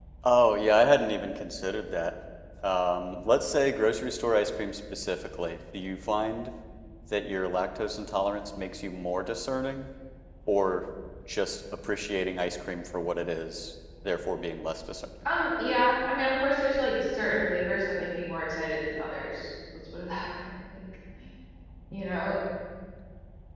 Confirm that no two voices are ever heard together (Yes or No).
Yes